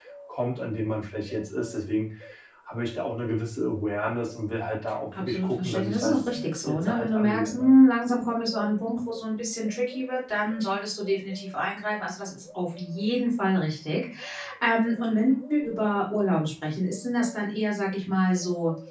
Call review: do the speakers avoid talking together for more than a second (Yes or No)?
No